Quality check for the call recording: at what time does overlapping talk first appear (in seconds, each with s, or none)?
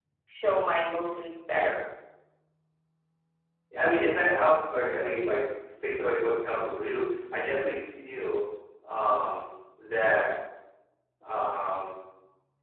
none